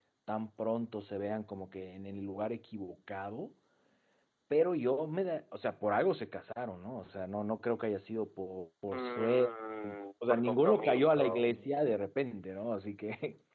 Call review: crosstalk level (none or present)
present